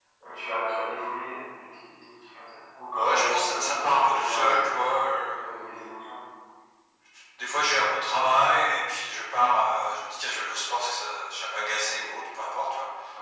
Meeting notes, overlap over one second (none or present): present